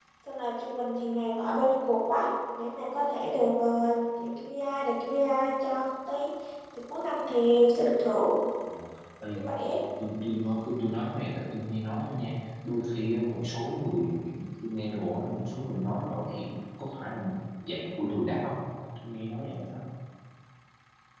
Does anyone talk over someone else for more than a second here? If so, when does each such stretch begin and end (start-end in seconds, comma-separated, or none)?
none